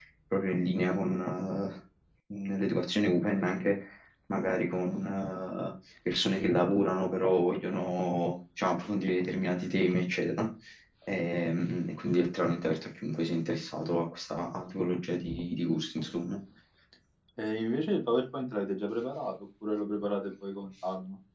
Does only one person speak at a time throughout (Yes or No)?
Yes